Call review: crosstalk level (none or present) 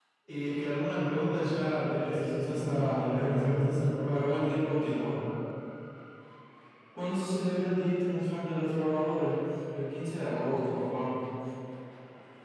present